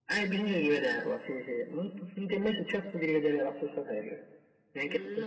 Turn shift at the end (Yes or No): Yes